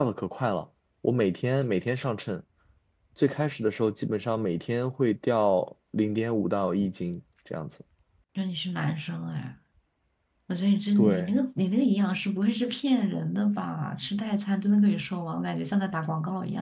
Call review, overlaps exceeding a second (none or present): none